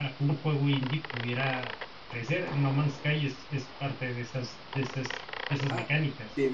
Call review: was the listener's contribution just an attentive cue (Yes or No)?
No